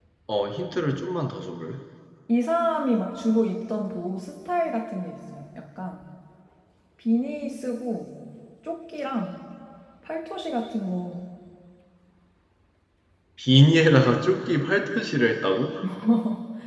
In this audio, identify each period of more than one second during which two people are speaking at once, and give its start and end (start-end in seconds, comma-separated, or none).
none